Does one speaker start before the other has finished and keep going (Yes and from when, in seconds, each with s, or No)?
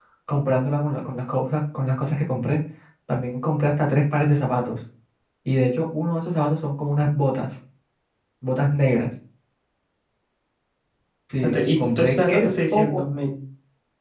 Yes, from 11.3 s